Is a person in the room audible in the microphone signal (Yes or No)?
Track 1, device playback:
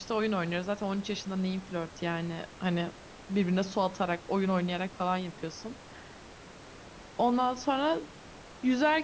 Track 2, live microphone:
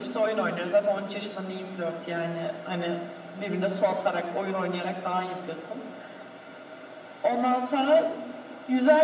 No